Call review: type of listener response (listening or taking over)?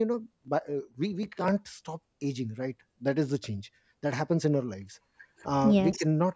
listening